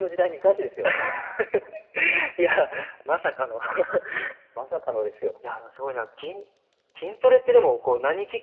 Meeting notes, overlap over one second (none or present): none